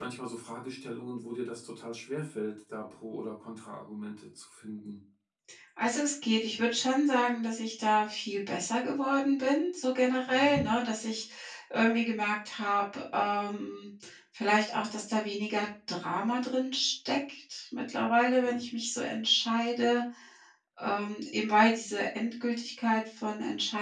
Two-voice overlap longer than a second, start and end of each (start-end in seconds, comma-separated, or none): none